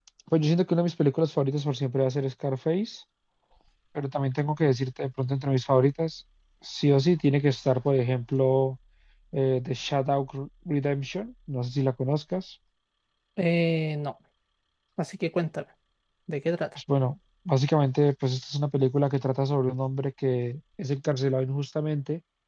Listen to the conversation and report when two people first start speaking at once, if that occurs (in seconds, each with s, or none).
none